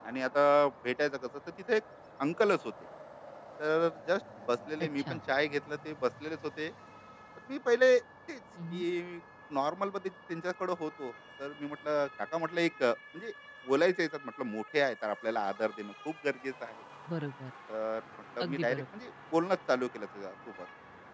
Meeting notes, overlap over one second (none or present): none